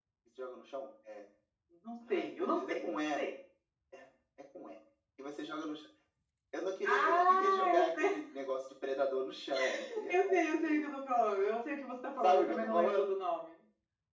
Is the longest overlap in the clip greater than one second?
Yes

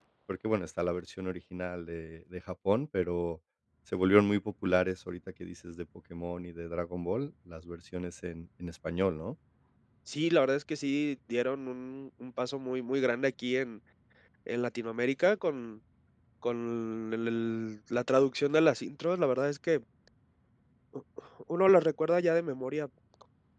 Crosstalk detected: No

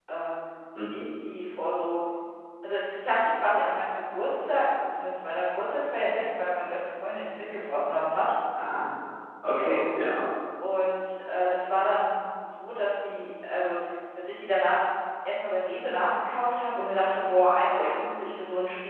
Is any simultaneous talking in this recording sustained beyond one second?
No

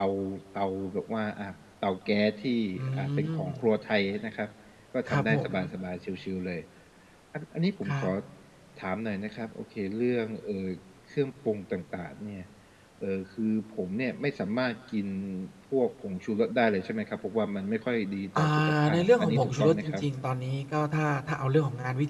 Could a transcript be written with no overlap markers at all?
No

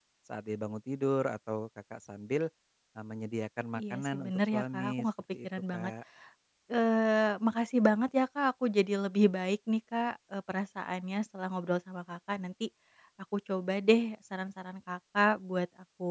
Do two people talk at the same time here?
Yes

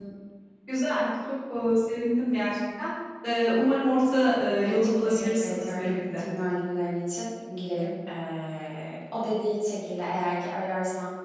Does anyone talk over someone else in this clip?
Yes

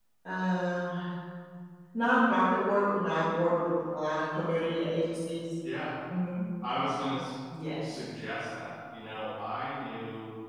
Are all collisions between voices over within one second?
Yes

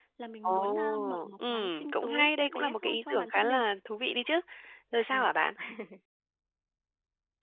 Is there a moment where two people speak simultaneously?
Yes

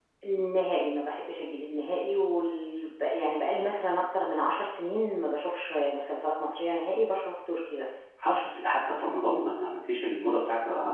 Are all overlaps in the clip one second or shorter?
Yes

